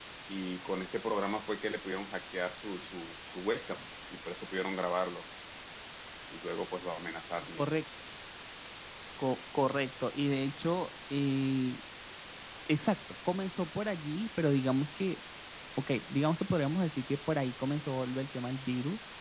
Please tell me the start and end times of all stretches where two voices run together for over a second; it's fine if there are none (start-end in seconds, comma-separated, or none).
none